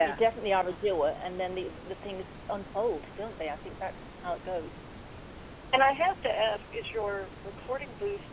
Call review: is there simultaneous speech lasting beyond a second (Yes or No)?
No